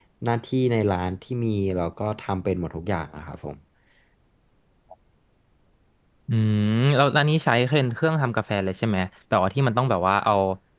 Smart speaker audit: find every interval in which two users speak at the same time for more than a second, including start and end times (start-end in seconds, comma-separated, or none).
none